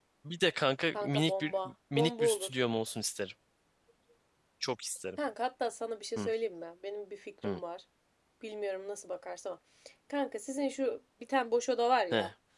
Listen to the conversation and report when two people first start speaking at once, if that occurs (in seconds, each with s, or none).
0.9 s